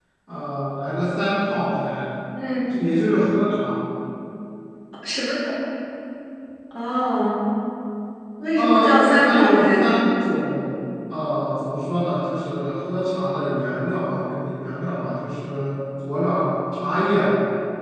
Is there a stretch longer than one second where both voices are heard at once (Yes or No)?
Yes